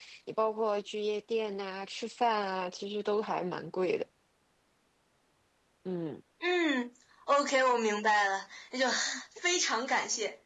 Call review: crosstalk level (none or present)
none